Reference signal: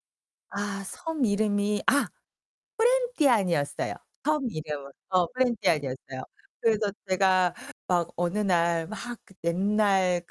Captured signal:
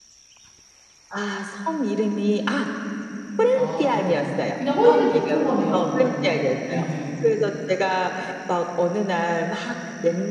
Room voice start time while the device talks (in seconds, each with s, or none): 3.5 s